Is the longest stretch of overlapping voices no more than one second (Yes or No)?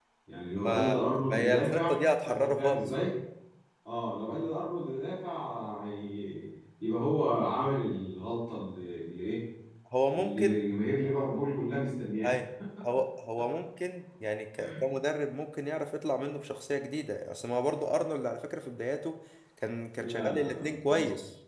No